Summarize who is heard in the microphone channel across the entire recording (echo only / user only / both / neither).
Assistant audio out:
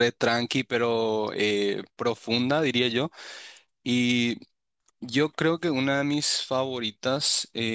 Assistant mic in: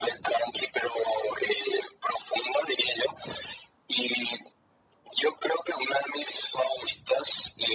echo only